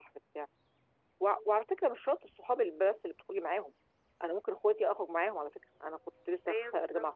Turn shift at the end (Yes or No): No